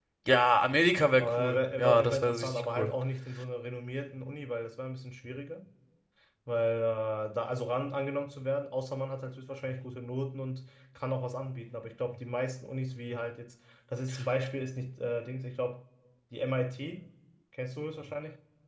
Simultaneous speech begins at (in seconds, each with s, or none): 1.1 s